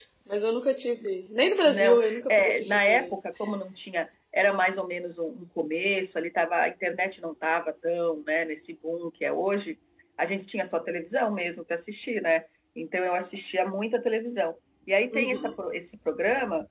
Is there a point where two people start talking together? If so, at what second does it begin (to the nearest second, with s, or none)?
2 s